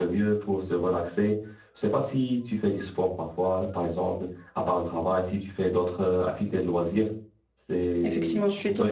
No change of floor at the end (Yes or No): No